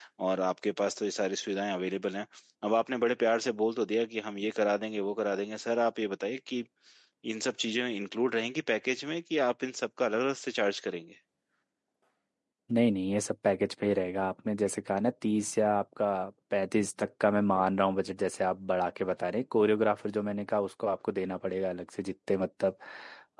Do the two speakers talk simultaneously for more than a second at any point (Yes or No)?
No